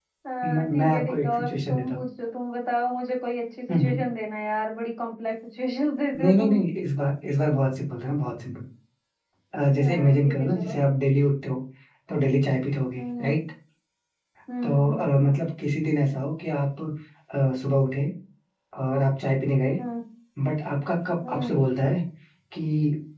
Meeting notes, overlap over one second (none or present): present